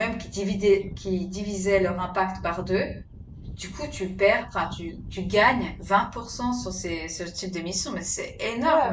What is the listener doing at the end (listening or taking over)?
taking over